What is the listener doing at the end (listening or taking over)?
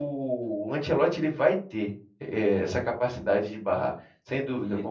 taking over